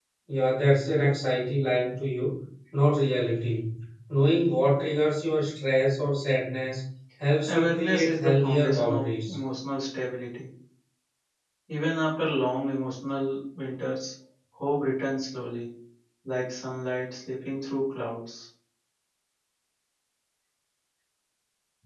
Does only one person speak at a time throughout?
No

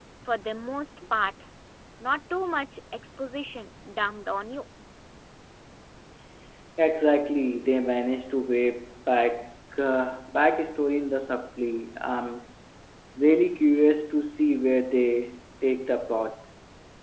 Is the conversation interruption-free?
Yes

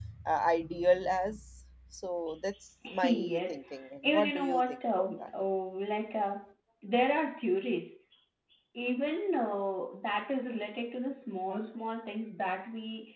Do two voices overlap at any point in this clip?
Yes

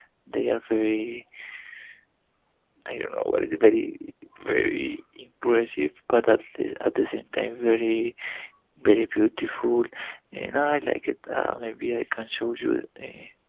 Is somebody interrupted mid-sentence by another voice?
No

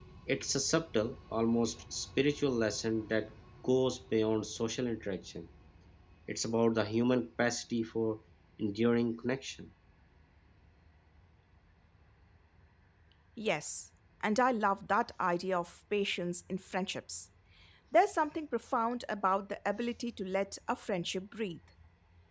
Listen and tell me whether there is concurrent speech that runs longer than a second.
No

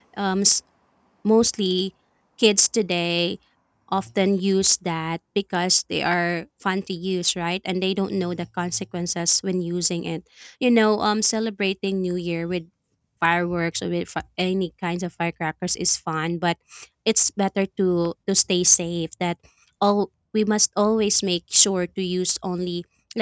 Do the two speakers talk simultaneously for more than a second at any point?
No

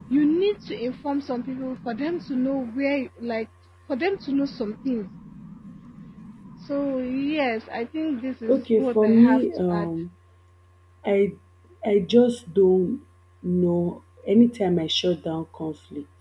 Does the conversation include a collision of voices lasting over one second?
Yes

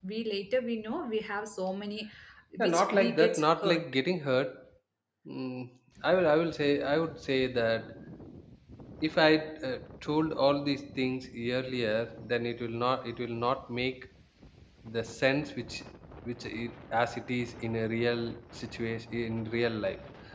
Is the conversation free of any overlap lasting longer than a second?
No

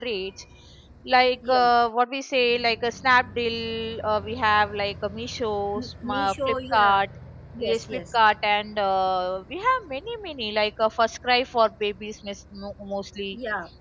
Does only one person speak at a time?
No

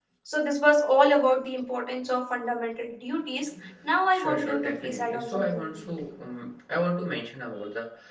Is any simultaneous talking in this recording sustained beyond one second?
Yes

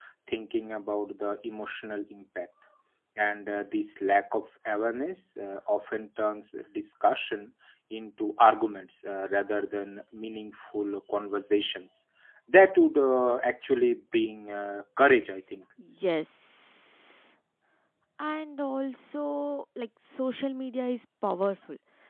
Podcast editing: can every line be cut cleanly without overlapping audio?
Yes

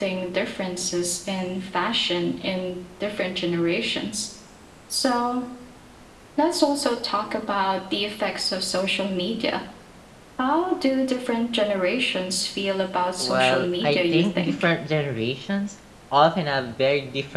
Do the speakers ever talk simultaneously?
Yes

